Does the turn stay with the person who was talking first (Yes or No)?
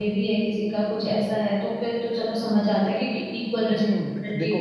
No